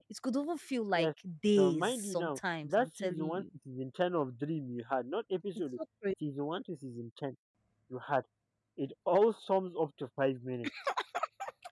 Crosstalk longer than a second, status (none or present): present